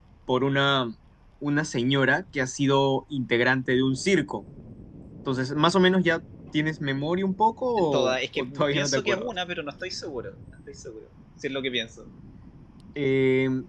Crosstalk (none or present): present